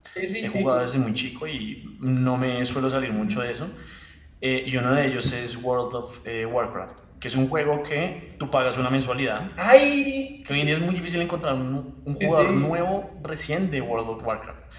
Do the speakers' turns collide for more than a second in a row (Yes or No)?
No